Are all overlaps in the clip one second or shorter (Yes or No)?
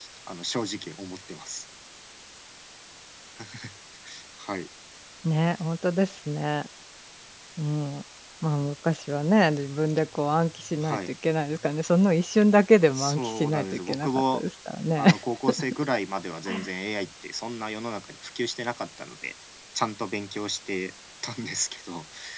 No